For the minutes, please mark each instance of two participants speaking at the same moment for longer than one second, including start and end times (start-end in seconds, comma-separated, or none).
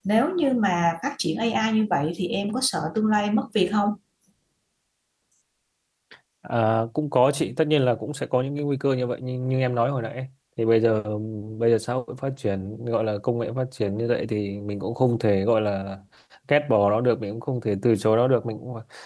none